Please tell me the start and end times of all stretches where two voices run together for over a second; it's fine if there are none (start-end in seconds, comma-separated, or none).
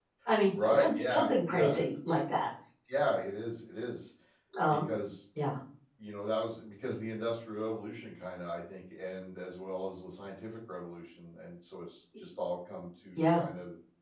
0.7-2.2